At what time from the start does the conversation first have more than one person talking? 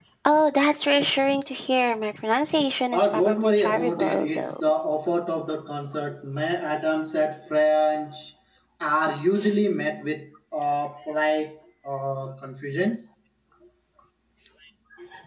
2.9 s

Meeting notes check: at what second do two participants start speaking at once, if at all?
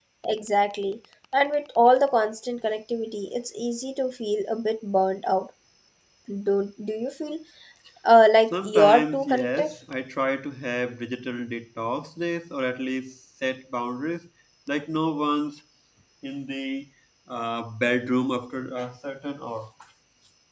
8.5 s

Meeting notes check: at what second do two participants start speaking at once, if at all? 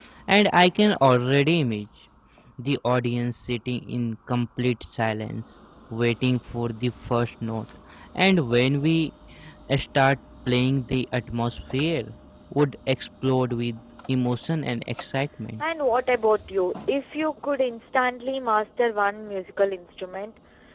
none

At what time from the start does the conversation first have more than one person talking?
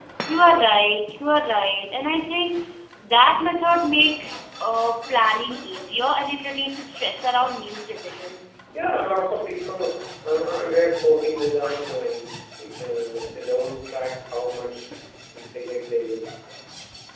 none

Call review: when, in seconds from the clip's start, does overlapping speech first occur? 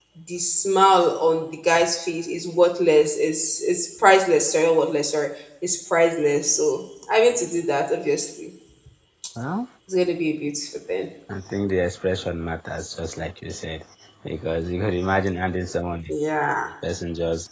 none

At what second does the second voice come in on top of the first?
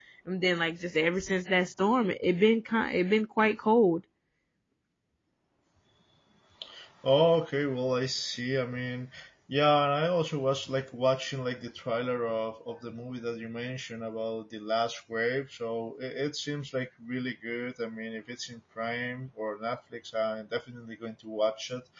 none

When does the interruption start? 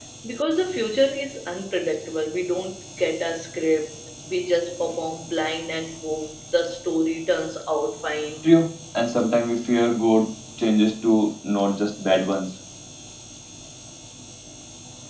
none

